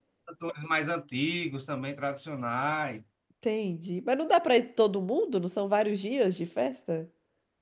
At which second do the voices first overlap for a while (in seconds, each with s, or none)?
none